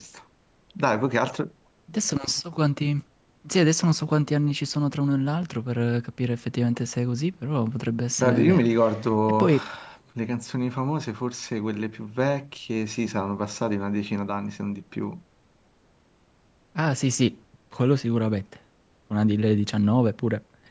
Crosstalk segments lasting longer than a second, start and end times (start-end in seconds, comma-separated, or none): none